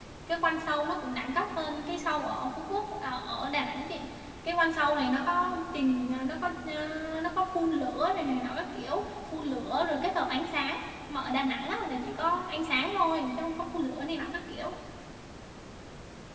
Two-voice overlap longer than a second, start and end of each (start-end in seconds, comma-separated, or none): none